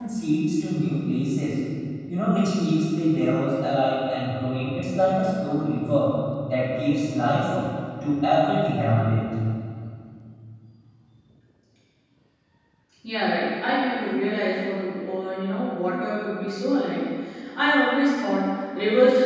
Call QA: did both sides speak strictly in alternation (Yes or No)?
Yes